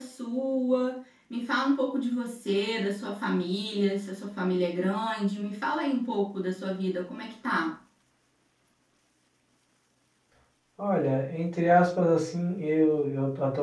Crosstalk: none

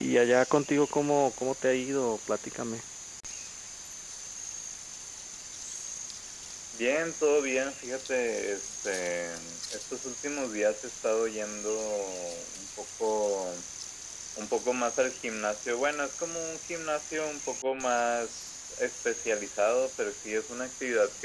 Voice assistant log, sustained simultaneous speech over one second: none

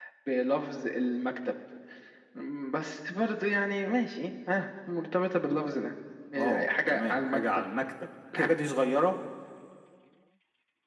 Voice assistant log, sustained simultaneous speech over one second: present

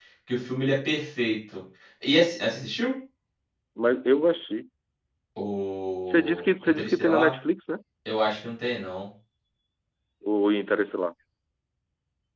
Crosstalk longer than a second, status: present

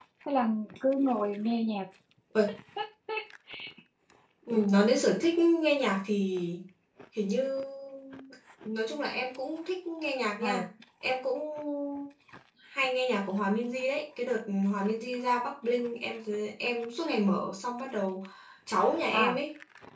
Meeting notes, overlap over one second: none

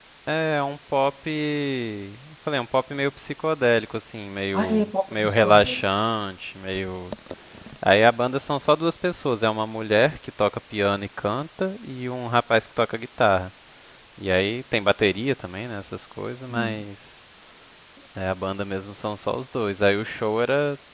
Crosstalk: present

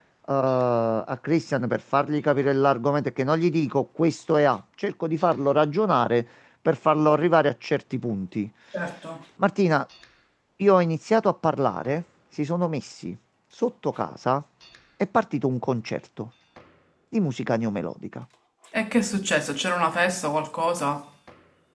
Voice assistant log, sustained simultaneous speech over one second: none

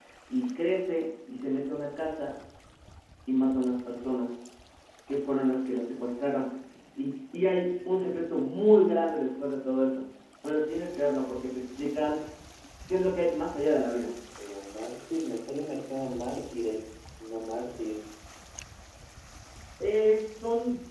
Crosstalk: none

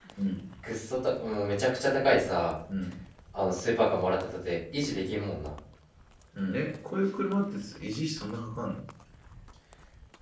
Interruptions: none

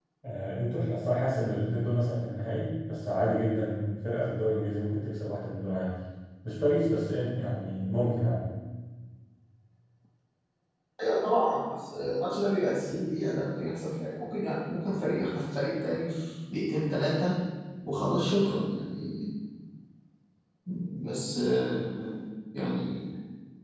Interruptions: none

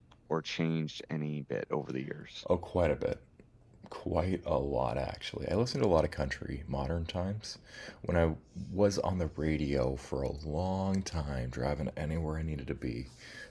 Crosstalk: none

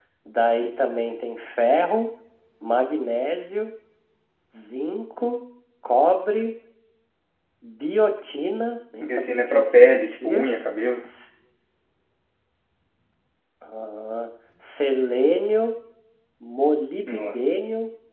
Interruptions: present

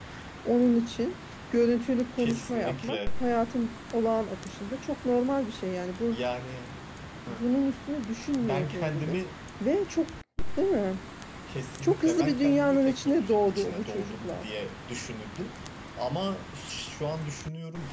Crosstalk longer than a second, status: present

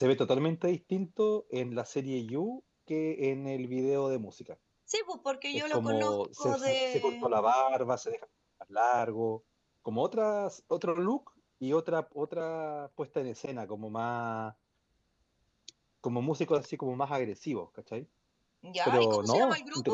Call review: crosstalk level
present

